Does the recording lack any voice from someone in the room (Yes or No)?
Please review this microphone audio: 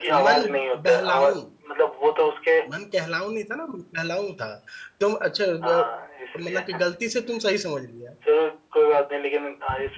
No